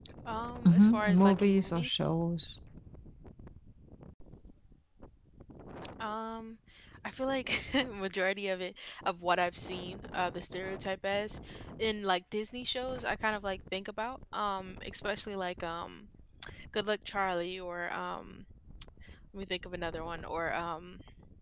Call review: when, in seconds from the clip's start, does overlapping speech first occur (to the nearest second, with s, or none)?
1 s